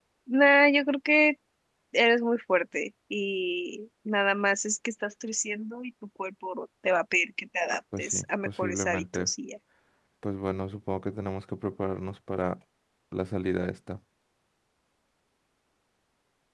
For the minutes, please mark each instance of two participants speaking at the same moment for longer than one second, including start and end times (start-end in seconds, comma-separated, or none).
8.0-9.3